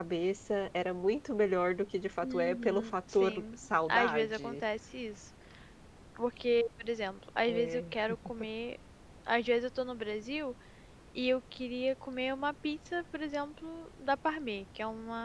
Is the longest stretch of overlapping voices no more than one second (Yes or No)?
No